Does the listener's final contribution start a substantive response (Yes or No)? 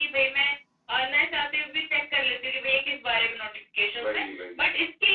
No